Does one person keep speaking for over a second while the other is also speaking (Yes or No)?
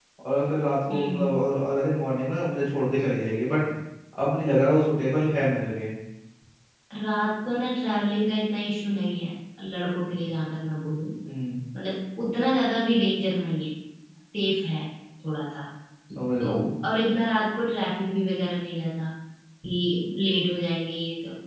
No